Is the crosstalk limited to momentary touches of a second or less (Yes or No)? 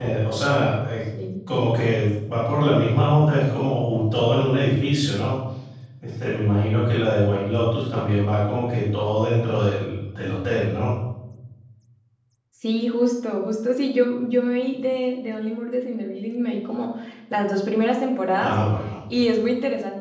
Yes